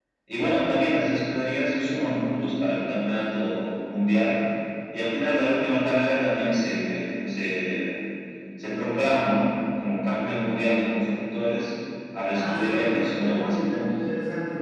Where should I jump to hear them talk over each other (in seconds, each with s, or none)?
12.3 s